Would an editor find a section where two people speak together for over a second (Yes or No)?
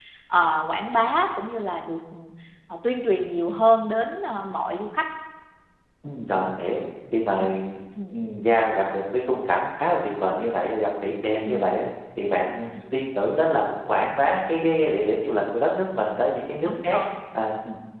No